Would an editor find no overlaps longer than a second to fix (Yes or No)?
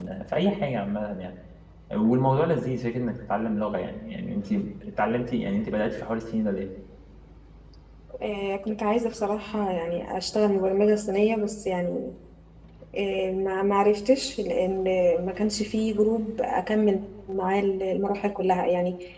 Yes